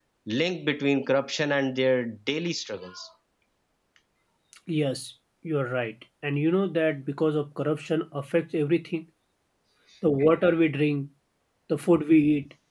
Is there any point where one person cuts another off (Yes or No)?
No